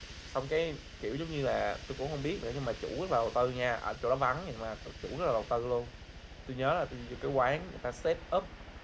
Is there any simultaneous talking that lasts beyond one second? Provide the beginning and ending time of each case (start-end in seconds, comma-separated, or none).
none